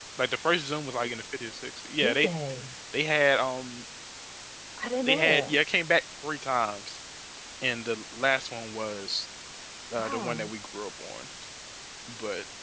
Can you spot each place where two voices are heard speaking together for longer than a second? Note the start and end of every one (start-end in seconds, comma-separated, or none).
none